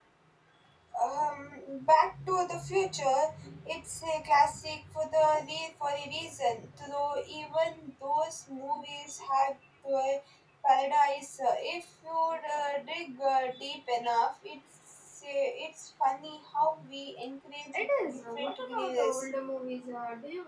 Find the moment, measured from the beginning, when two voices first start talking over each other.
17.7 s

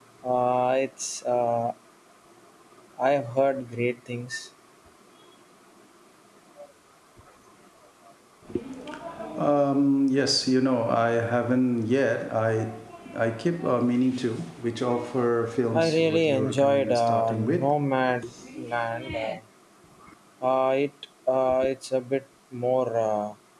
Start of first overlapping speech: 15.7 s

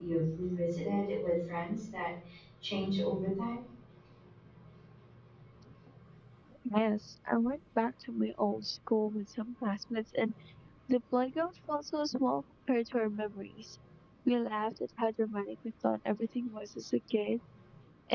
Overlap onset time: none

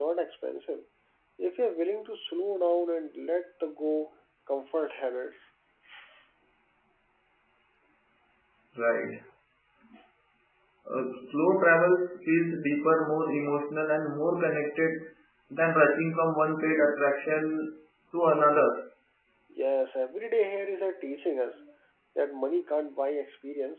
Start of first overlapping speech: none

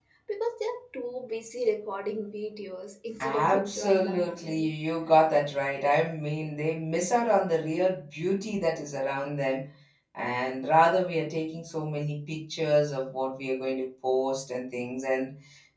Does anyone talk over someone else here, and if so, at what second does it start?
3.2 s

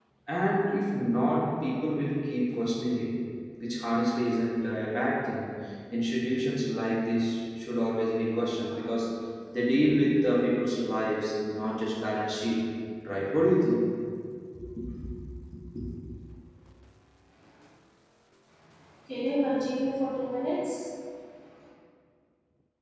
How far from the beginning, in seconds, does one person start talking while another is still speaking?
none

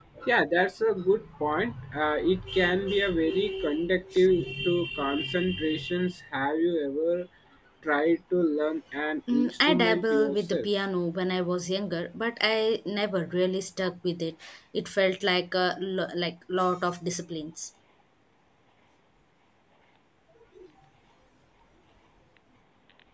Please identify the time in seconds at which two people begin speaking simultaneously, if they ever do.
9.3 s

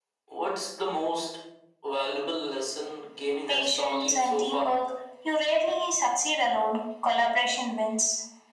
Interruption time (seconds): 3.5 s

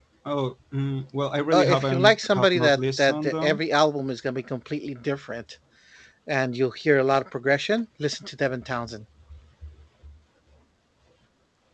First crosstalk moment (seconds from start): 1.5 s

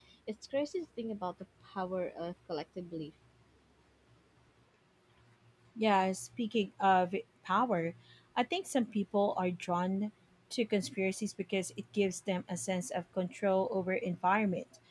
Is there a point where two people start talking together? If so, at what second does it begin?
none

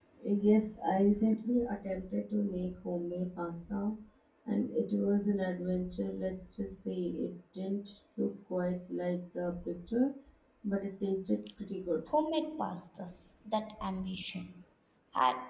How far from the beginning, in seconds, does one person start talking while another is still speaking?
none

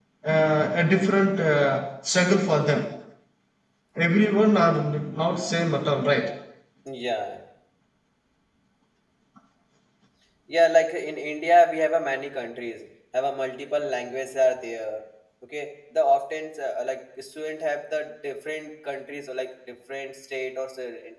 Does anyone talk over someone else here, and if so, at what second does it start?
none

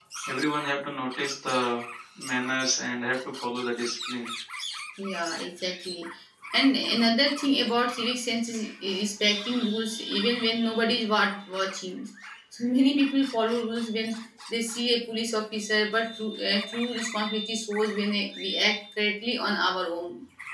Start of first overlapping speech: none

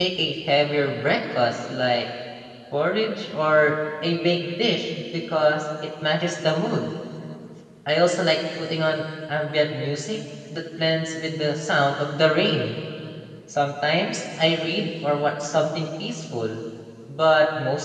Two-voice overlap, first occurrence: none

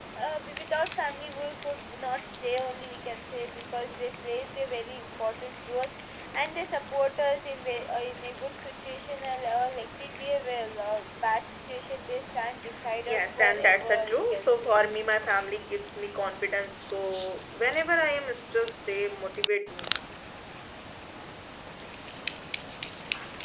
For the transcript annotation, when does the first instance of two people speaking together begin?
13.1 s

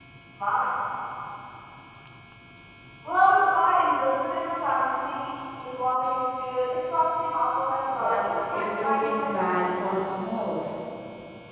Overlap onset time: 7.9 s

